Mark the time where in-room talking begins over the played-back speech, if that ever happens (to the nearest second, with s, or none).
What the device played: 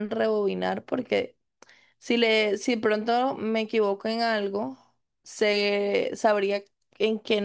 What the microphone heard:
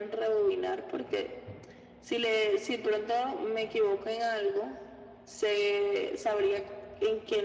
none